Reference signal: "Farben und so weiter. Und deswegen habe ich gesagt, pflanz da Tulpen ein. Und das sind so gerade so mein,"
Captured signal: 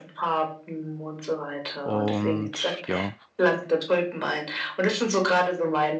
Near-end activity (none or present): present